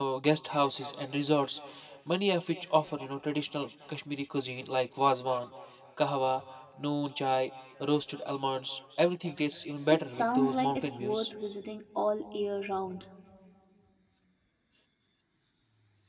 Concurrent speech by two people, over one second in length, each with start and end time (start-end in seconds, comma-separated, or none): 9.9-11.3